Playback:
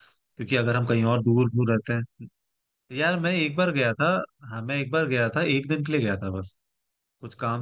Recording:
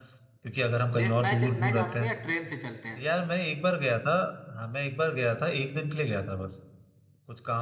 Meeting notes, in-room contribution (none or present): present